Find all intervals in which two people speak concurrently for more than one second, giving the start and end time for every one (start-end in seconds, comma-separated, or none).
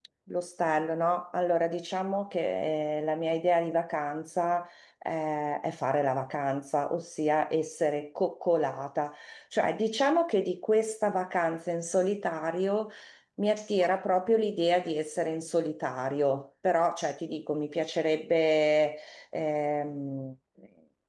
none